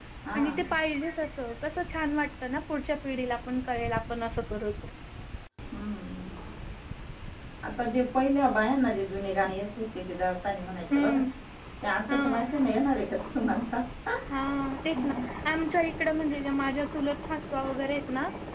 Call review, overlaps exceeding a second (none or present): none